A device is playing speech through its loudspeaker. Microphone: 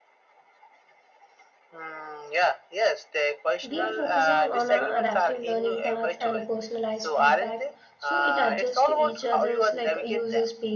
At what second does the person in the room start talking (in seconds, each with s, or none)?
3.6 s